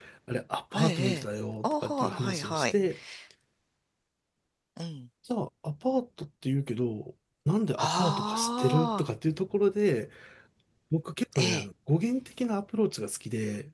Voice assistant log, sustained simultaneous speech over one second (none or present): present